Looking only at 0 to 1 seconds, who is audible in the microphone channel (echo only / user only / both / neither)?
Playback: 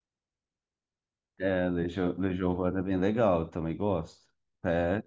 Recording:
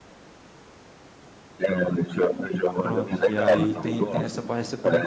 neither